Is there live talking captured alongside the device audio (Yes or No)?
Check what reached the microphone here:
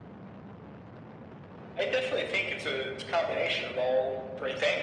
No